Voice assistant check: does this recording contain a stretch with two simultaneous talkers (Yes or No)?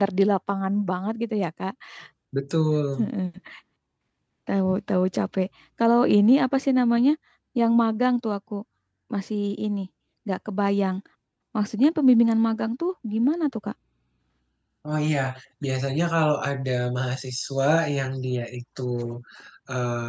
No